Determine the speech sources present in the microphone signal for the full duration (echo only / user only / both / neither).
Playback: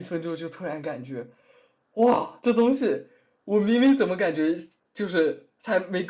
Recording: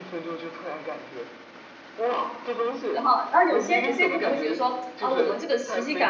both